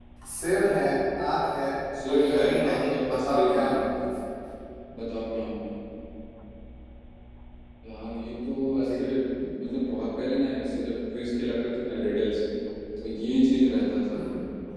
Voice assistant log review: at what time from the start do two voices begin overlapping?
2.1 s

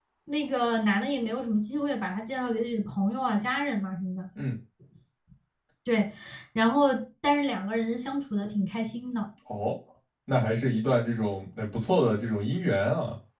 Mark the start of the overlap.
none

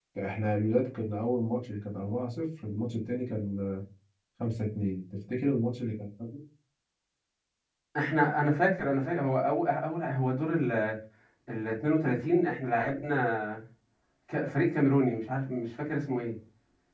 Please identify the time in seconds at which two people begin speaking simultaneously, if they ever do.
none

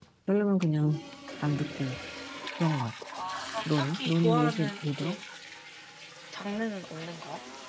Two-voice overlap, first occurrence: 3.6 s

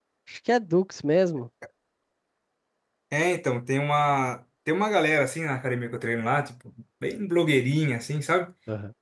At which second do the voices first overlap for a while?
none

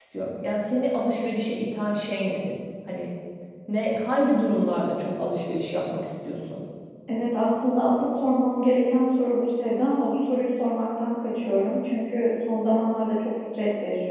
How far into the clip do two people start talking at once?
none

